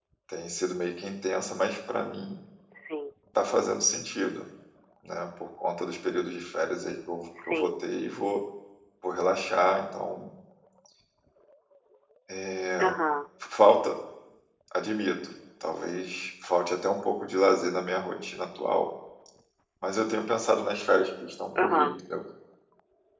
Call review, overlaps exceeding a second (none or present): none